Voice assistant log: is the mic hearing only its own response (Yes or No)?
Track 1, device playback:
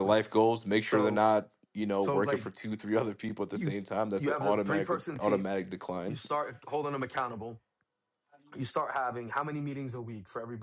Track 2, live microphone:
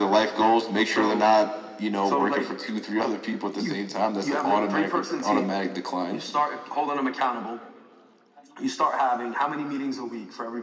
Yes